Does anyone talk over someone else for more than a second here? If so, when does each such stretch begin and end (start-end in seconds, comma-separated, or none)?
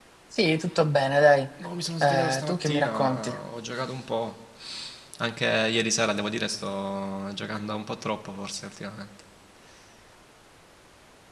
2.0-3.3